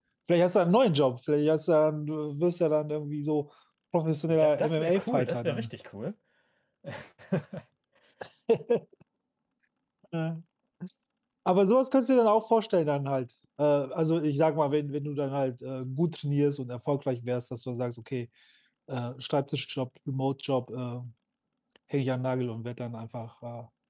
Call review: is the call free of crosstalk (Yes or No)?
No